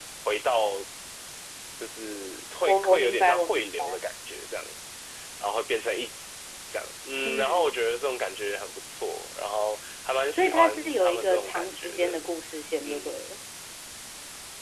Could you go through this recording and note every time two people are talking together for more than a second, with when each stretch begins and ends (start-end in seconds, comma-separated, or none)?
2.7-4.0, 10.3-12.2